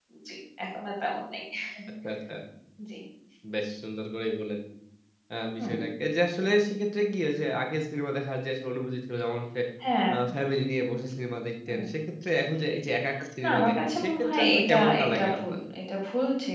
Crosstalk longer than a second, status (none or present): present